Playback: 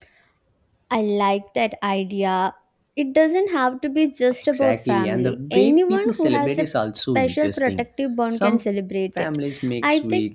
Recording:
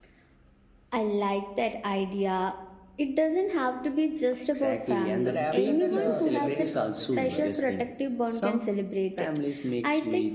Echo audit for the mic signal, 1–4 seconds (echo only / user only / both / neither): echo only